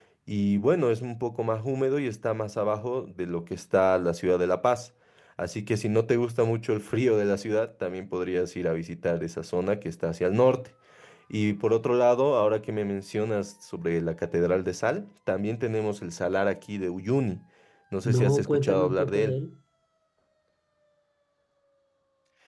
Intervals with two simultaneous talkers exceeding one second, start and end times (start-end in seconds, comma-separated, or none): 18.1-19.4